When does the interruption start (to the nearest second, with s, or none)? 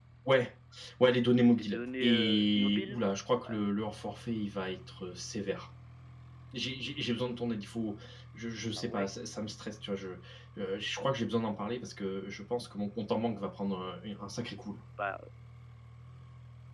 2 s